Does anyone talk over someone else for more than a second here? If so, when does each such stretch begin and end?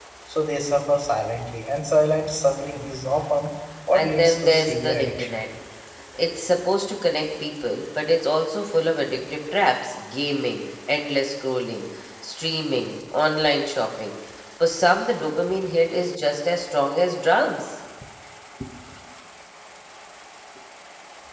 3.9-5.3

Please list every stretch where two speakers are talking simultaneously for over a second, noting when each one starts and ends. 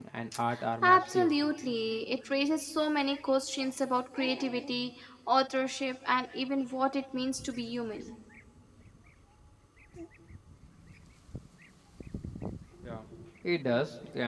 none

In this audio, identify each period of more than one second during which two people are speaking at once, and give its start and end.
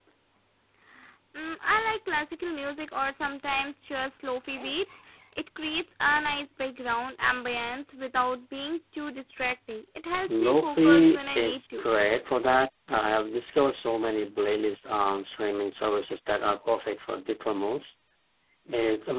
10.3-11.8

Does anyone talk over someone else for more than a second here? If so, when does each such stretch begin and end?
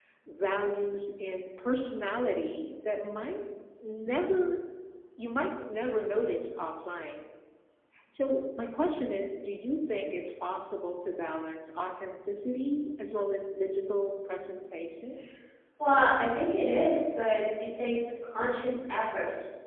none

